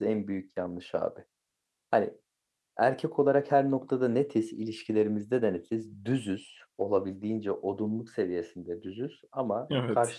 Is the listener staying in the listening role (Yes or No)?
Yes